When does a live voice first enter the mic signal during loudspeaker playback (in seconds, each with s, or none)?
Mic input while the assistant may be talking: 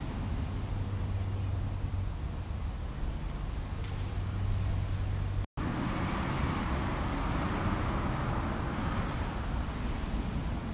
none